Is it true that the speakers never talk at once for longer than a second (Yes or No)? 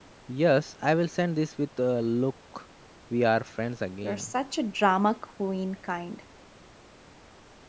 Yes